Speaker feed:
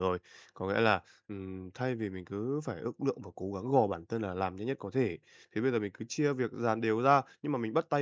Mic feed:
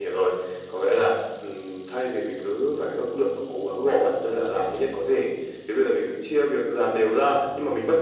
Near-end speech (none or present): none